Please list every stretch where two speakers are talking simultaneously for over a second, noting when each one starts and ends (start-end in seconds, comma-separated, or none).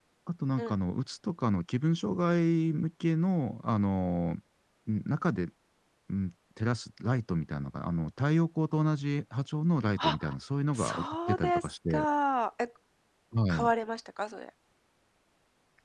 10.7-12.1